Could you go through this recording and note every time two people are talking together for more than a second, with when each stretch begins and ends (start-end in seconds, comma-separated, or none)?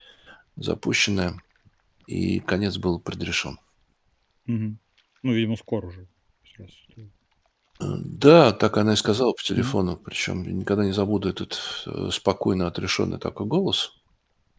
none